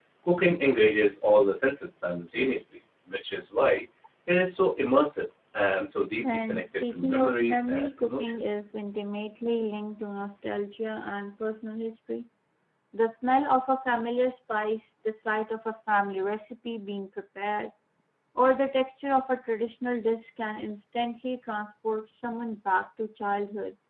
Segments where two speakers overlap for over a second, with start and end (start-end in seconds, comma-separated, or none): 6.2-8.4